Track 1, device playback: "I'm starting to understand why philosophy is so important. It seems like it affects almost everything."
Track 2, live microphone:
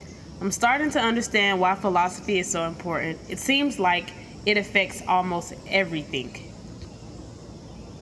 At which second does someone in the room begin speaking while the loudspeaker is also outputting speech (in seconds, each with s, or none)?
none